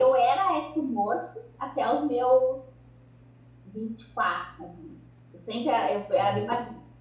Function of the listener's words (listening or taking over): listening